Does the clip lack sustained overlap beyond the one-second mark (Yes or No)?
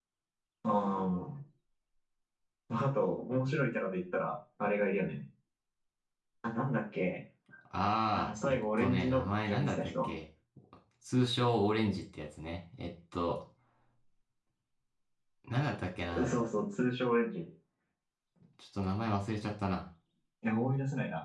No